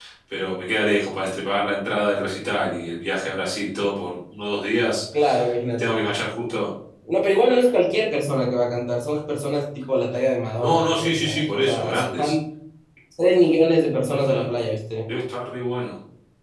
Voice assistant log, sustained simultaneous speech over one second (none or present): present